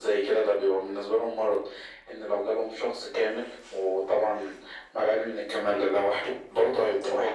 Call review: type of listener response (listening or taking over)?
listening